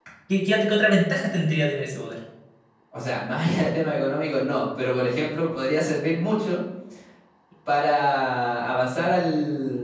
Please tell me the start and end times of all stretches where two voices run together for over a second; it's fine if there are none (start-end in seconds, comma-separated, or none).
none